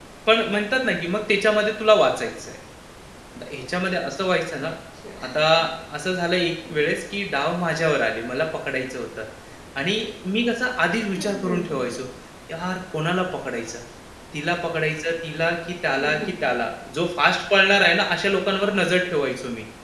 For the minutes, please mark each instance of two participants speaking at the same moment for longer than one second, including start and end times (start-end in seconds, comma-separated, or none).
none